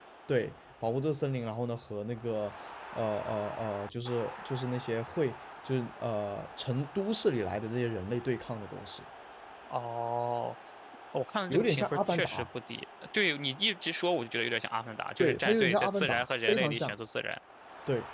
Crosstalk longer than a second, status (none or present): present